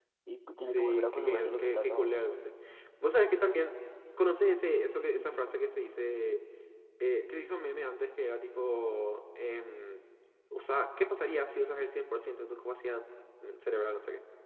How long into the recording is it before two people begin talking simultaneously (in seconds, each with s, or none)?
0.7 s